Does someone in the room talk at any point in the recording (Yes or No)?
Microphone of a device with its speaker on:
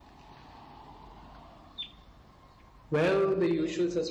Yes